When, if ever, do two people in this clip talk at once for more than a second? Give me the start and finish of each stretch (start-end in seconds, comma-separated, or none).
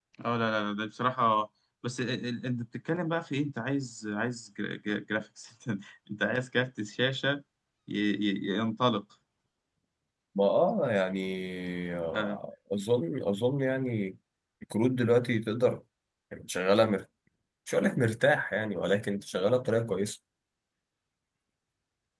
none